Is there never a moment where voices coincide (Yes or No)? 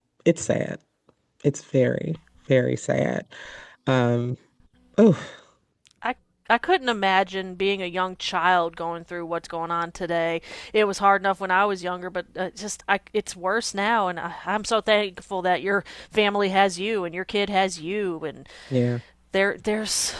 Yes